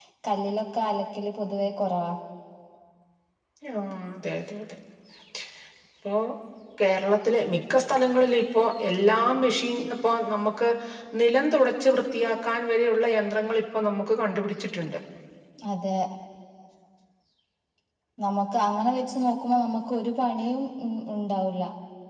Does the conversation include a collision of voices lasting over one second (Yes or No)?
No